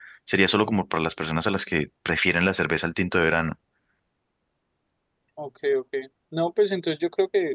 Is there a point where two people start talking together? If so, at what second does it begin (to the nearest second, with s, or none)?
none